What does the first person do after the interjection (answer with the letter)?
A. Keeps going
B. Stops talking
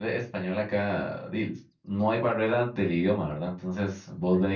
A